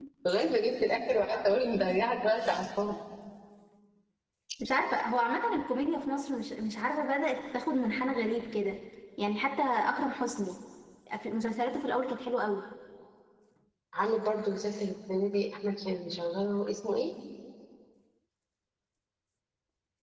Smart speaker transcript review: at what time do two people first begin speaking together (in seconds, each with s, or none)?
none